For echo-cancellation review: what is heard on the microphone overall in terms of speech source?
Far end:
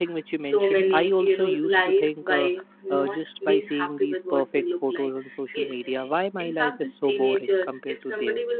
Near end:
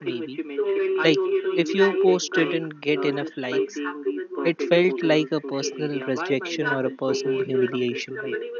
both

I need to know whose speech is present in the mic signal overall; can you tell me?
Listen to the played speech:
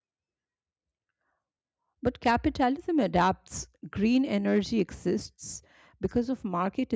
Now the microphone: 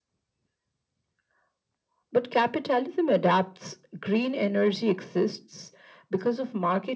echo only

